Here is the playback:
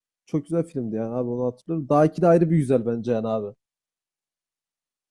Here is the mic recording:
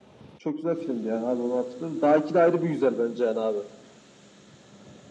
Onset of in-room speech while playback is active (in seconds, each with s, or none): none